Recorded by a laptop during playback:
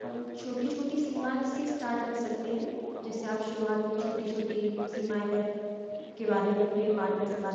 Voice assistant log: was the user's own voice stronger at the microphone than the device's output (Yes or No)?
Yes